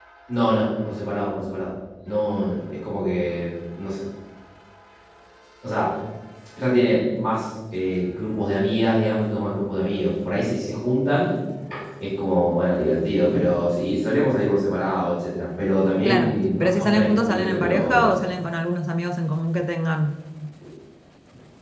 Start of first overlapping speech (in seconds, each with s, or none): 16.0 s